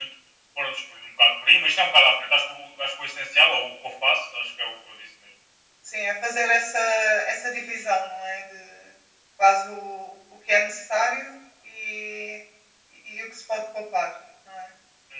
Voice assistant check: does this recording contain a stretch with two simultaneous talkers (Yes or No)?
No